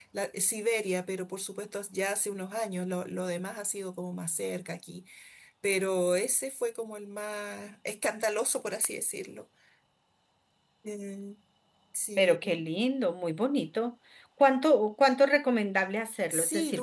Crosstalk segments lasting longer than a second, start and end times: none

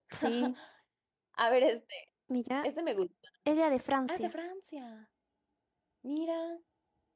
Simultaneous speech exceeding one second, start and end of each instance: none

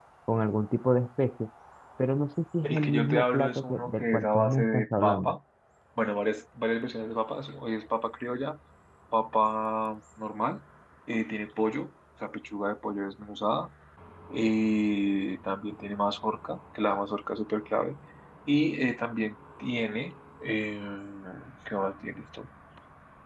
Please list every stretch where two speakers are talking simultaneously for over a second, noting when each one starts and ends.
2.6-5.3

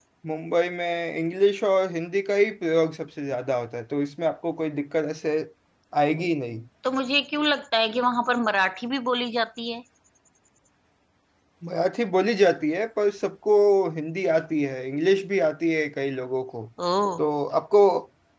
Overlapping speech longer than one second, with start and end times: none

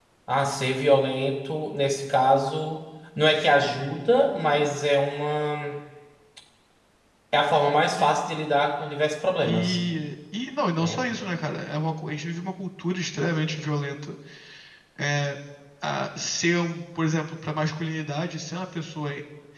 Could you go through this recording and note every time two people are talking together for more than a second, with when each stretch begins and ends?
none

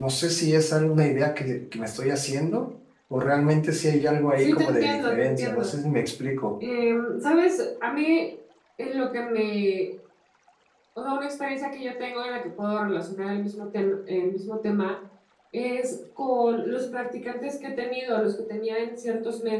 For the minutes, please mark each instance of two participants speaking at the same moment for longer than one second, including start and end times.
4.4-5.7

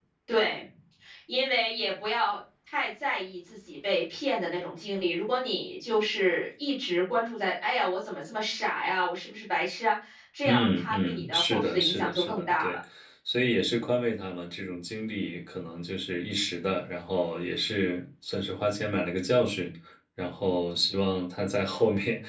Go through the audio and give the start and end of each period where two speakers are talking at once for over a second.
10.4-12.8

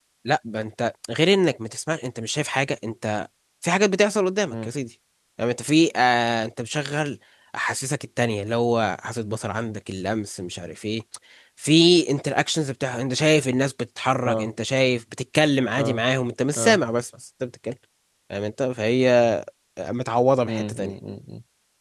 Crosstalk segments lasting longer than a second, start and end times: none

